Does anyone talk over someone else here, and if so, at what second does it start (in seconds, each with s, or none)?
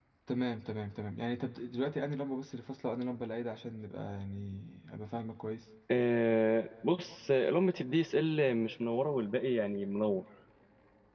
none